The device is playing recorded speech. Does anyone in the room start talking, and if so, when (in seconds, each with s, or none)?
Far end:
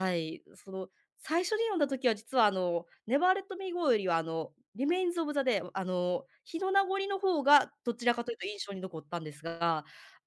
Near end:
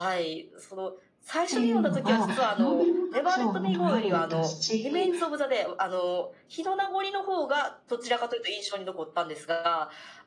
1.4 s